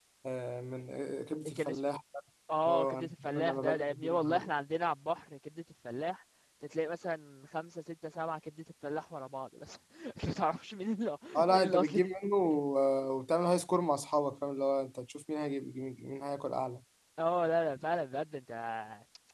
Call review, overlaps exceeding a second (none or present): present